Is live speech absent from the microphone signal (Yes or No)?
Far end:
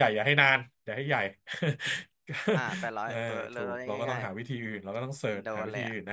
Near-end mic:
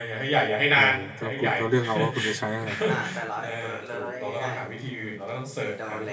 No